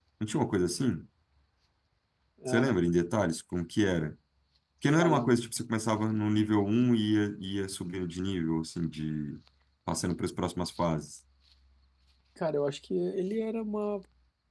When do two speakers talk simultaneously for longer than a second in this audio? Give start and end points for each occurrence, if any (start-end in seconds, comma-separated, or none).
none